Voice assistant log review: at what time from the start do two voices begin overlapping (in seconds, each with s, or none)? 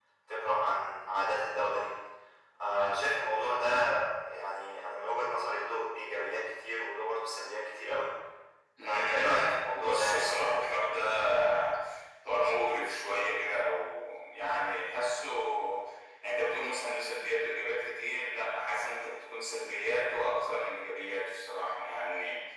8.8 s